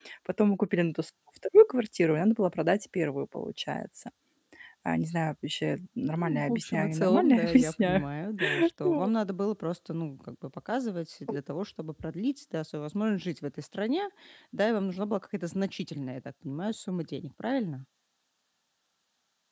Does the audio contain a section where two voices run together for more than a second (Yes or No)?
Yes